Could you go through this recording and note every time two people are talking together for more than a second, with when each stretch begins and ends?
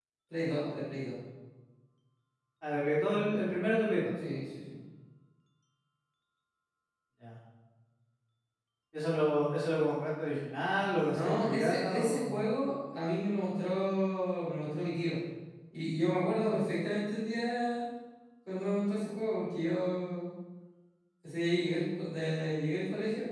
11.1-12.5

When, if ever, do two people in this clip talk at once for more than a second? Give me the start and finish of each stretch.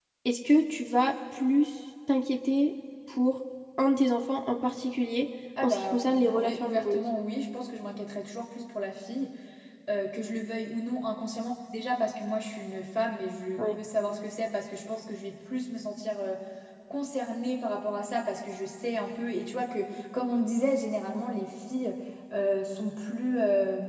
5.6-7.0

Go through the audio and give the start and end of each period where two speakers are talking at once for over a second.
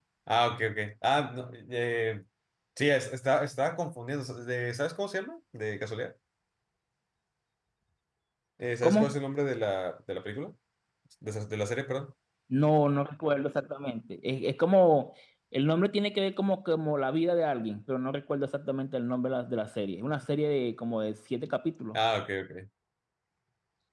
none

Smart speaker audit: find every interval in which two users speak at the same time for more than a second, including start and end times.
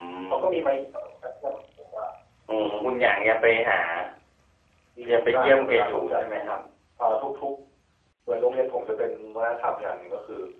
5.1-6.4

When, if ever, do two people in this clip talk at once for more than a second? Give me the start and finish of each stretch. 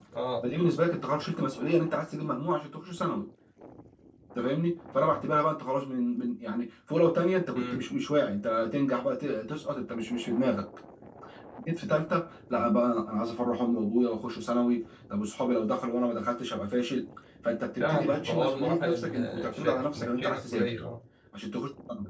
17.8-20.7

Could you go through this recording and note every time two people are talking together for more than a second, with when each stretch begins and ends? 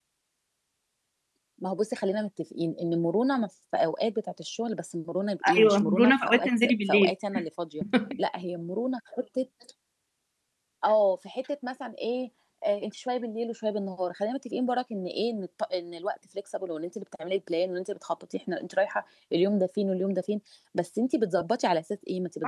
5.6-7.1

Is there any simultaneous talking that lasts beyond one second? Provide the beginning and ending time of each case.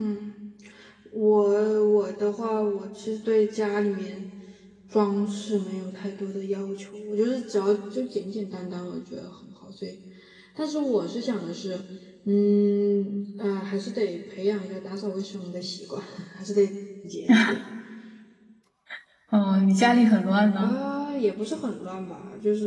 none

